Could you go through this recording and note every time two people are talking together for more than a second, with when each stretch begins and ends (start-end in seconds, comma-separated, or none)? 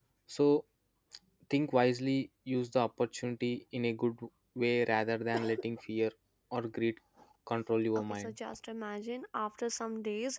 none